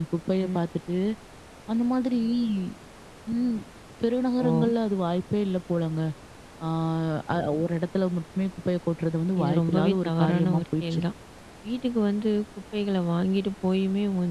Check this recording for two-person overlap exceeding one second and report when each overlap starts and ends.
9.4-11.0

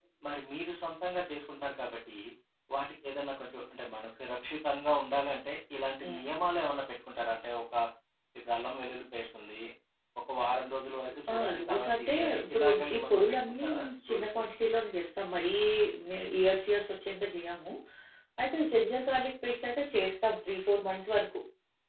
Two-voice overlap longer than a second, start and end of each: 11.3-14.4

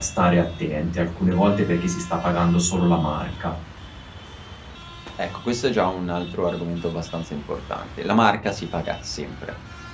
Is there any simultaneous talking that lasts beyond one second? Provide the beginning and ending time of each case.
none

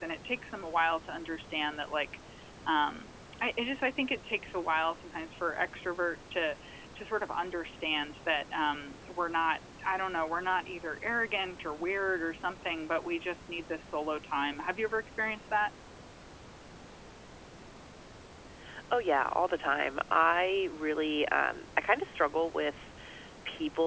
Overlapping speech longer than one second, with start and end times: none

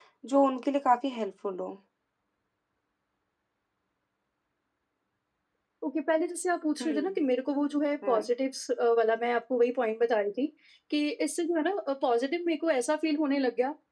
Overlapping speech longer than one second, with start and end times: none

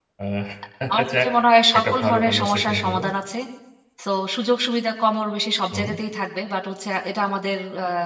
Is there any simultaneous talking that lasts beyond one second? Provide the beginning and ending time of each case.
1.8-3.0

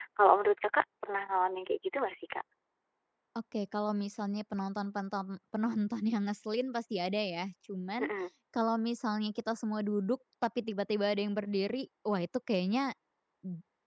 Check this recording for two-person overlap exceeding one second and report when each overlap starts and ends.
none

